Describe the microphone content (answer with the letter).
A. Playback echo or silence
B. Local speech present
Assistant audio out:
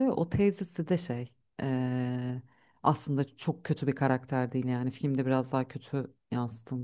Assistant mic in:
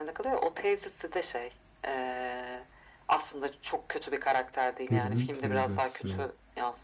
B